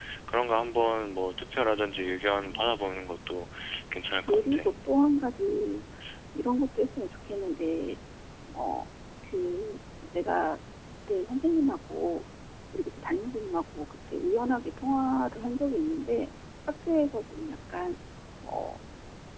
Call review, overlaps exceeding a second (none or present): none